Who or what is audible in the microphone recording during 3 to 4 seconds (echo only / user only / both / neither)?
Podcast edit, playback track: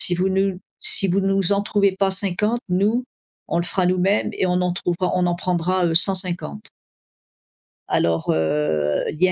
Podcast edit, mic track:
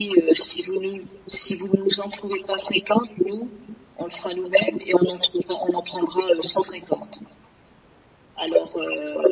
echo only